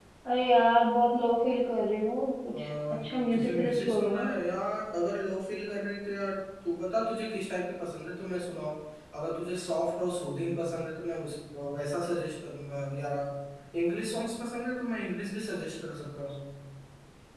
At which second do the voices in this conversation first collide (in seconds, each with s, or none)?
2.5 s